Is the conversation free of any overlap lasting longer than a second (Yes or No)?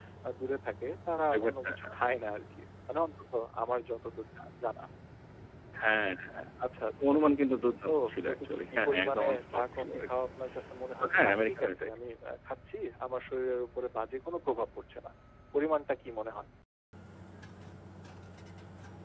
No